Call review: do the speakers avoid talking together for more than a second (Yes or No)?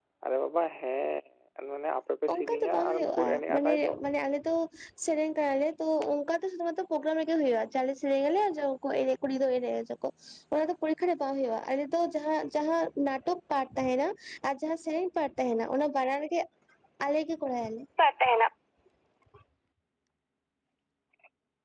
No